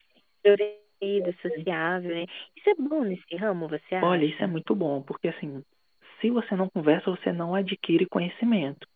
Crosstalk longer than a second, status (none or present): none